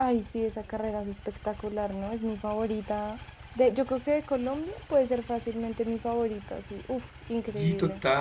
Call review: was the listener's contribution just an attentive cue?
No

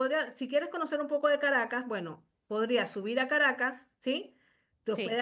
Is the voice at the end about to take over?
No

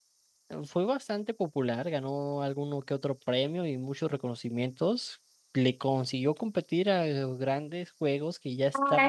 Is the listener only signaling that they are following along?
No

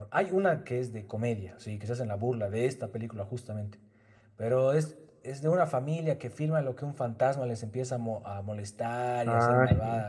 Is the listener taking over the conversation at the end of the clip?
No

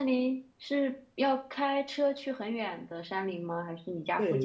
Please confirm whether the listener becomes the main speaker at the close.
Yes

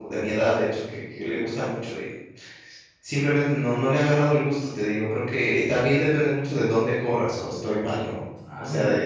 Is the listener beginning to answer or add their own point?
Yes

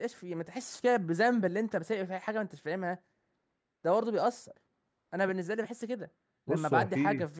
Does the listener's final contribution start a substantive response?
Yes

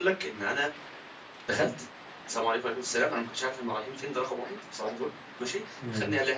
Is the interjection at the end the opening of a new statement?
No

